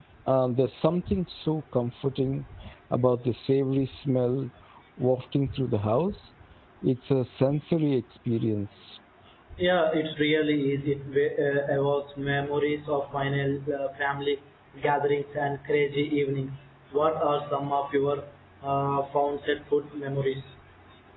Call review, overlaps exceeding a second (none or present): none